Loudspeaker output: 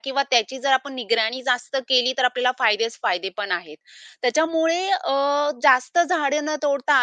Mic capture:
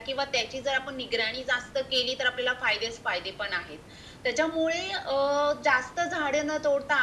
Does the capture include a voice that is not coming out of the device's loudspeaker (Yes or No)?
No